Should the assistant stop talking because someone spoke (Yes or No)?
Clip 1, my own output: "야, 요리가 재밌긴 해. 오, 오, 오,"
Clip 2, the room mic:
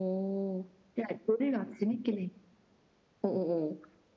No